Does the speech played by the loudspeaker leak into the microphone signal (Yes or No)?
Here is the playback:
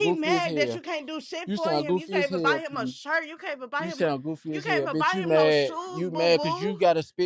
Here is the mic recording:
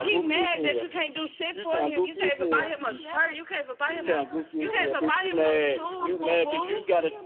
Yes